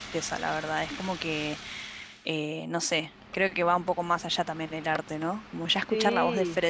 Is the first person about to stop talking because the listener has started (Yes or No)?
No